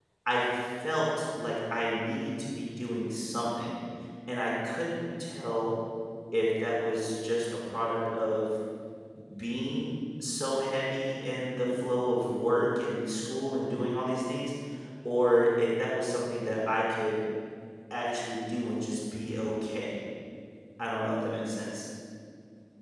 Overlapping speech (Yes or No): No